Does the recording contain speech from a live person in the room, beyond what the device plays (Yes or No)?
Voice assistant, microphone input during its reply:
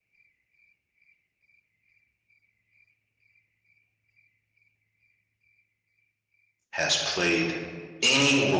Yes